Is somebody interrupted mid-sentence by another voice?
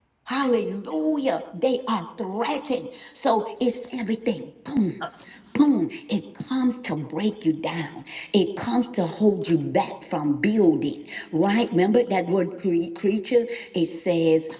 No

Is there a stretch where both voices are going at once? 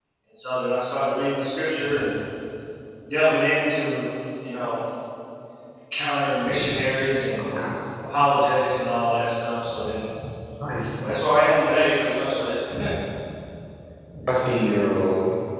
Yes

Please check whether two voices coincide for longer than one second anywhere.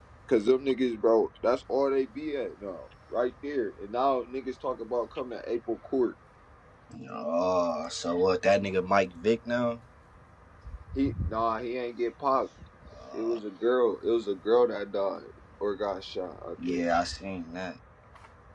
No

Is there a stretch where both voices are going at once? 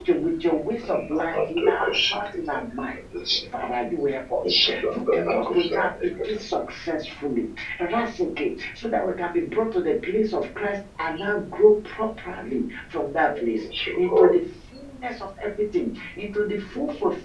Yes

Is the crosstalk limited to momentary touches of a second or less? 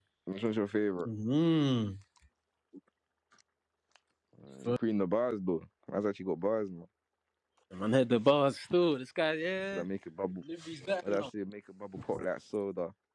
Yes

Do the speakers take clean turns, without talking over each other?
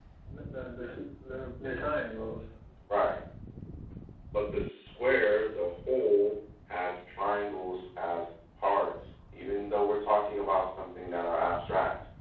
Yes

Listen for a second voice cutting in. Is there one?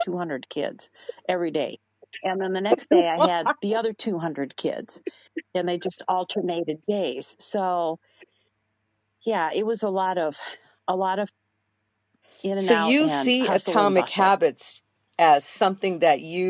Yes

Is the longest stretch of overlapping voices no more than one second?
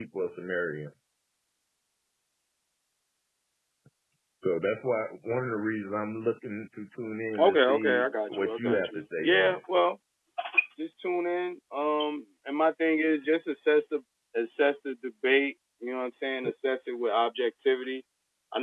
No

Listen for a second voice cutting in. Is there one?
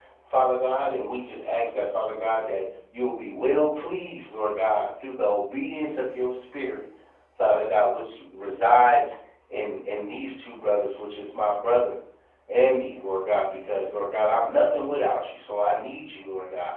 No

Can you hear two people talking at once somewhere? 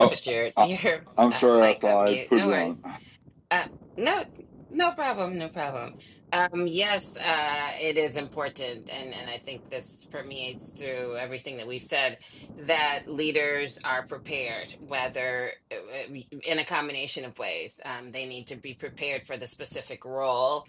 Yes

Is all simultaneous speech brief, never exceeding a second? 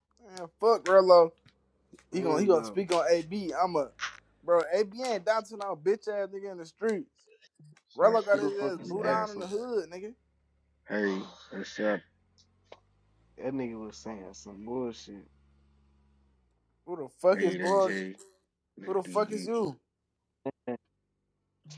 No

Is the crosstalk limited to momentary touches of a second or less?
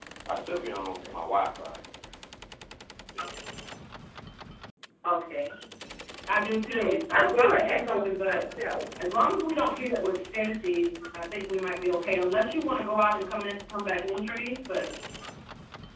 No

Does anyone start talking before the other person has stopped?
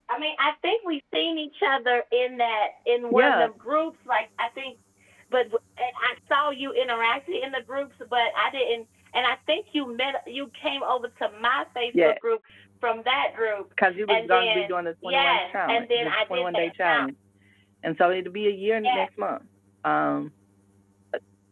Yes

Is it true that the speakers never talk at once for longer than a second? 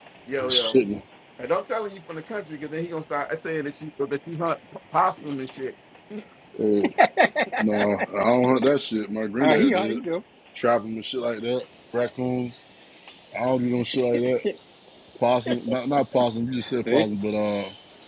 Yes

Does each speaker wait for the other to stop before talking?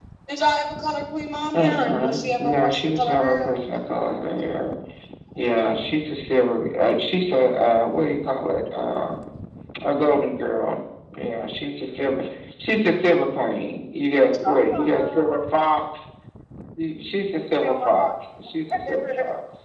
No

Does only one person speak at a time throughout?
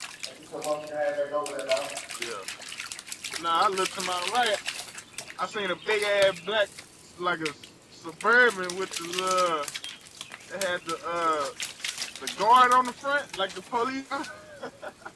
Yes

